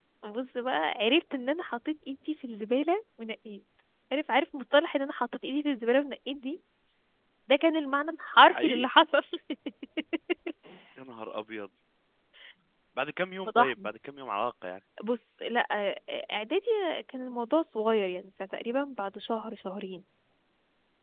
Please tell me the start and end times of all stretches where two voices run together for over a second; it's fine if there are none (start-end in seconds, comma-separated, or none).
none